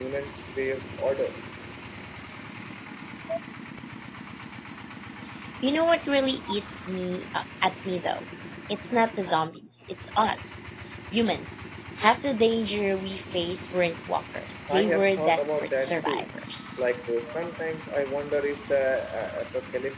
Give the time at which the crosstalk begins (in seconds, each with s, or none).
14.7 s